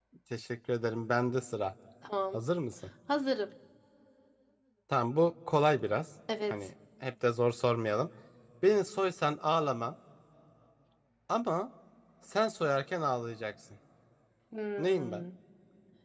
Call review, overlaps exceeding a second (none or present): none